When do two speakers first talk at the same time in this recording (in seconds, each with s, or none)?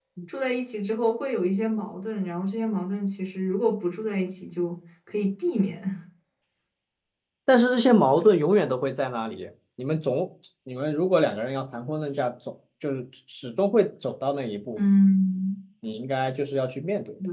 none